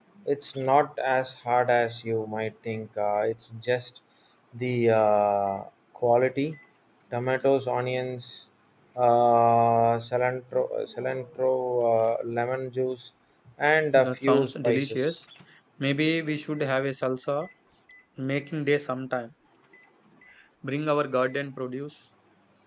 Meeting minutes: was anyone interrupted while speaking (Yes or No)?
Yes